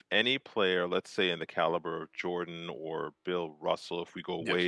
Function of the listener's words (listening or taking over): listening